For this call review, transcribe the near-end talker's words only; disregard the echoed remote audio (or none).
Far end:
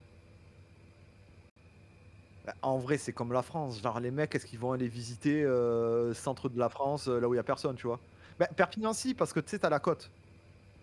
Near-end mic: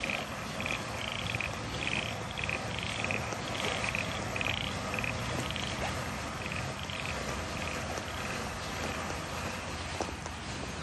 none